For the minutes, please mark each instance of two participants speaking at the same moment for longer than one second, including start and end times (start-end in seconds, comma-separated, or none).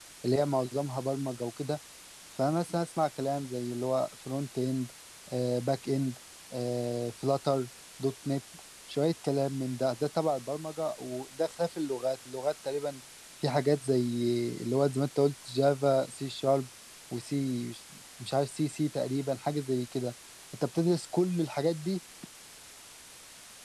none